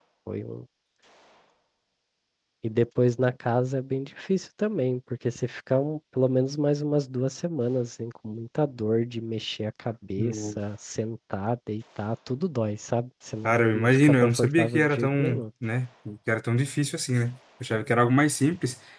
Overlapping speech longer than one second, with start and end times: 13.4-15.4

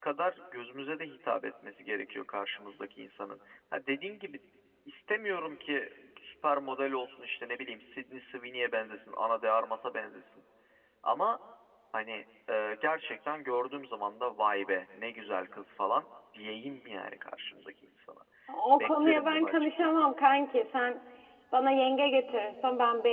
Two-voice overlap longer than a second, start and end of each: 18.8-20.0

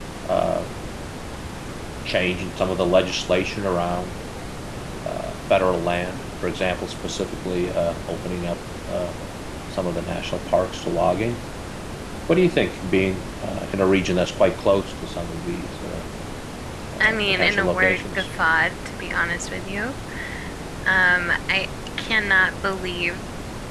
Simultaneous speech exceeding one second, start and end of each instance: 17.0-18.3

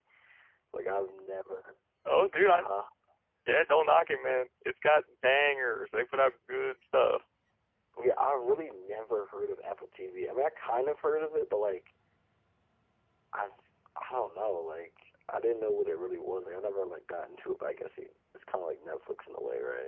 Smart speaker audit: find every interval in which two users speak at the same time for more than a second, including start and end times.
none

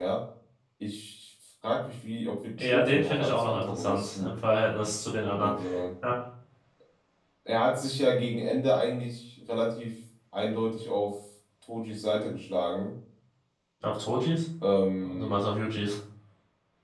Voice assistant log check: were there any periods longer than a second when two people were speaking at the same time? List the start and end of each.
2.6-4.3

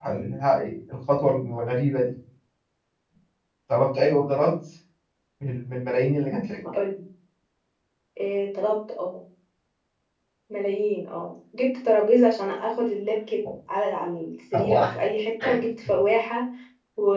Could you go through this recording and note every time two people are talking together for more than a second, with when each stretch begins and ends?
none

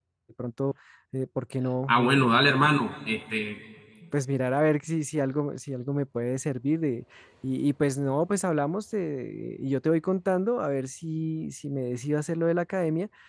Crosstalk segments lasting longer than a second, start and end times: none

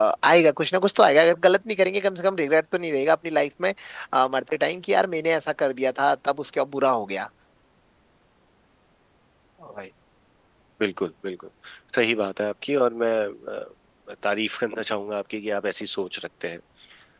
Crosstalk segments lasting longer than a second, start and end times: none

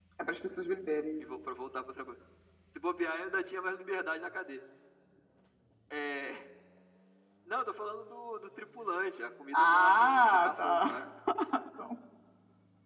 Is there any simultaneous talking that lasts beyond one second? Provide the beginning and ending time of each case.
9.5-11.1

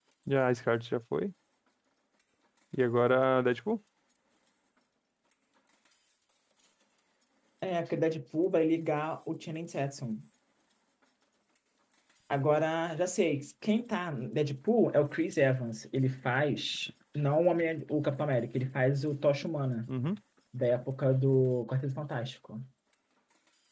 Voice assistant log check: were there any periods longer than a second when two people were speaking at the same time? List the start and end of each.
none

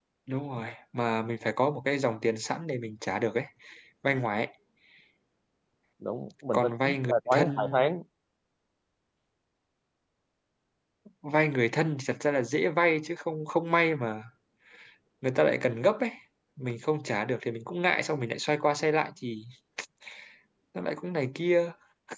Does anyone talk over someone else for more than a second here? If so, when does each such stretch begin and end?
6.5-7.8

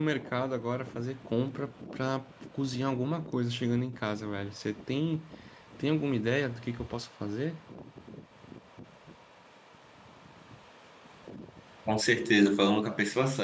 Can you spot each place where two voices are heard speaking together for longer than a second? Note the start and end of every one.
none

